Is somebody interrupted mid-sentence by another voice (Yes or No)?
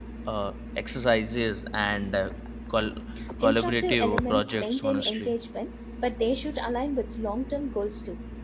Yes